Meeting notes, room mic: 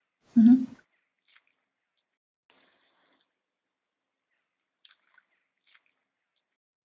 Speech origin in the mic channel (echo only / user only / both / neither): user only